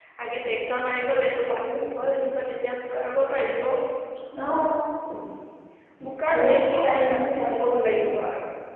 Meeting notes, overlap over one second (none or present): present